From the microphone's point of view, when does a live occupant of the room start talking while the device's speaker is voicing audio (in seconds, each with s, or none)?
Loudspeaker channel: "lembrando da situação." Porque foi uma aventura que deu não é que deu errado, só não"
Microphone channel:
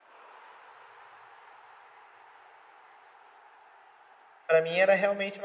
4.5 s